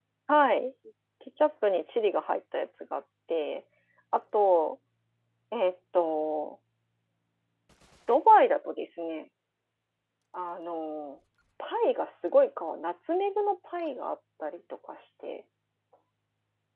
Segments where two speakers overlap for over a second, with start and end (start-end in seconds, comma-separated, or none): none